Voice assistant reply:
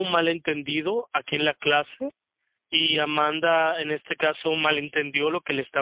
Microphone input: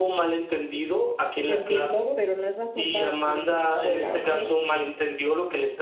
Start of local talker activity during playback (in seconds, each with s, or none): 1.4 s